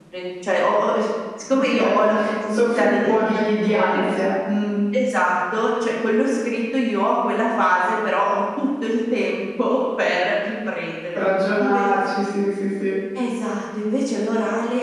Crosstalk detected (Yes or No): Yes